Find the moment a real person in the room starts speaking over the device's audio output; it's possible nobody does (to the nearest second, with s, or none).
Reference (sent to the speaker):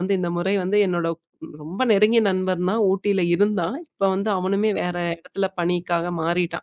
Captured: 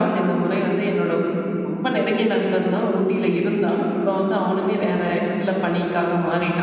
none